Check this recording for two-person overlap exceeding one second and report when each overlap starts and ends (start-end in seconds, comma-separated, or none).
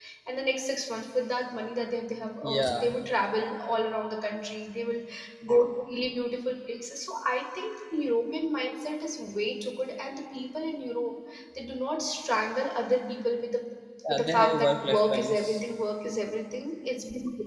14.1-15.4